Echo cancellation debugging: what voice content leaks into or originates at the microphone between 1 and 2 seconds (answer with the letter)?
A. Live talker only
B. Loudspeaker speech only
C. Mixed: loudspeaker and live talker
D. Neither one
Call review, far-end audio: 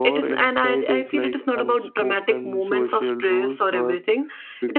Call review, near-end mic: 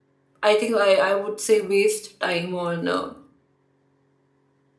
A